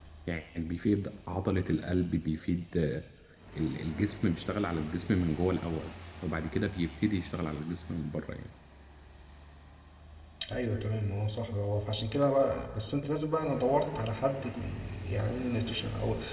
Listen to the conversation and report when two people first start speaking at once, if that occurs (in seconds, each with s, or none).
none